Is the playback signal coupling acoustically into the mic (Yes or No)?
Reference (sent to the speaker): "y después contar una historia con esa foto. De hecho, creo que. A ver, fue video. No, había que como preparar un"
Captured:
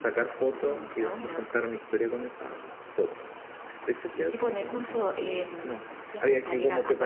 Yes